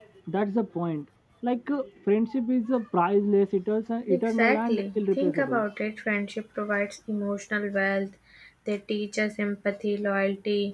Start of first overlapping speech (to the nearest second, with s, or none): 4 s